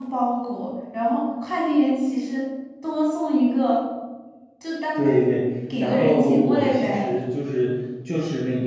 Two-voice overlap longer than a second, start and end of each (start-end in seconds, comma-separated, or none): 5.8-7.1